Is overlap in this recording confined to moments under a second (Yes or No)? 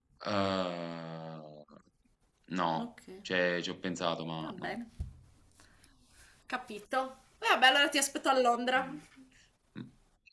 Yes